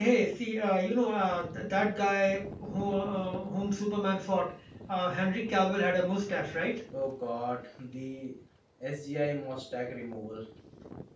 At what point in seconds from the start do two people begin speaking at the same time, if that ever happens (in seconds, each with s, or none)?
none